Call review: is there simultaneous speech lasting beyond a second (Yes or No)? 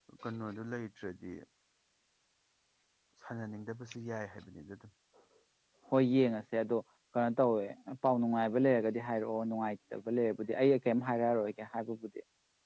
No